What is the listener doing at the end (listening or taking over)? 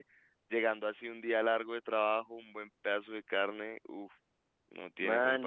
taking over